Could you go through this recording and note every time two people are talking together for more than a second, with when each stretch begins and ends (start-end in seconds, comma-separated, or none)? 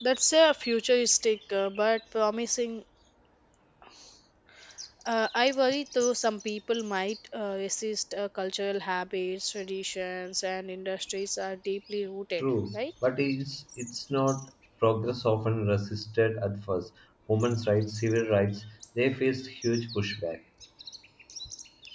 none